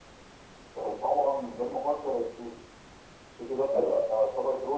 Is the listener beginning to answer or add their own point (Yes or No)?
No